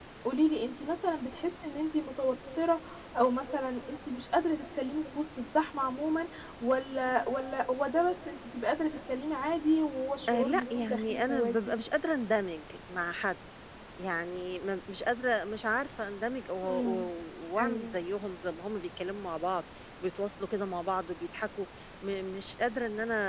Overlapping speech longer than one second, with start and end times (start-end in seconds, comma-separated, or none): 10.3-11.5